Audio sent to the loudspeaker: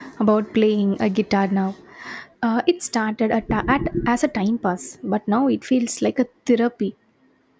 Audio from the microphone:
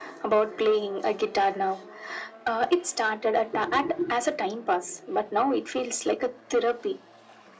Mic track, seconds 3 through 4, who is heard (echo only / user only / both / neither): echo only